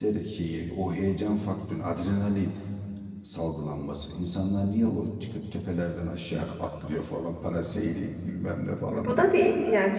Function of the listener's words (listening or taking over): taking over